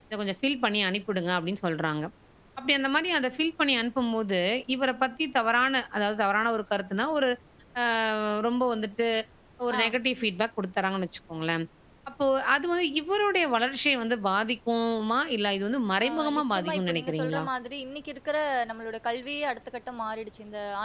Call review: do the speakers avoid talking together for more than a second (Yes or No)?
No